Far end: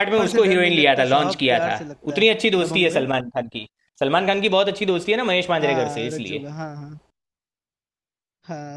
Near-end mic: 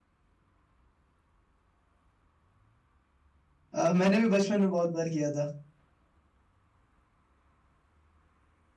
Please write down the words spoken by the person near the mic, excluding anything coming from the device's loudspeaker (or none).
अ, मैंने भी बचपन में बहुत बार किया था